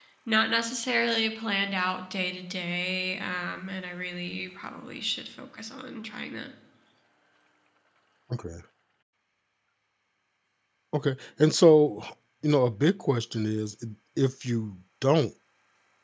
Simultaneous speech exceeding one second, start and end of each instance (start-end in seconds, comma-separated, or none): none